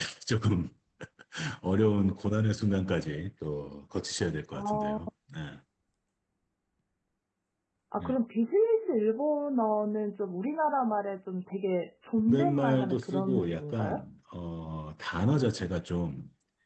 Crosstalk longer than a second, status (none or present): present